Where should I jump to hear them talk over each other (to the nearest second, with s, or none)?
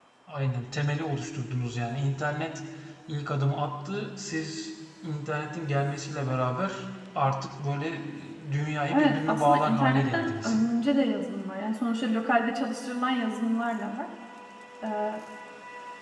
9 s